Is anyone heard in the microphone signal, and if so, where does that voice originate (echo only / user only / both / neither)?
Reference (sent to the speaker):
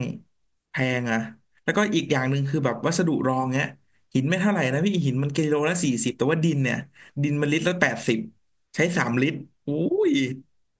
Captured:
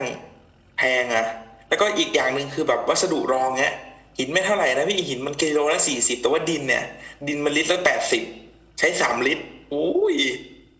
echo only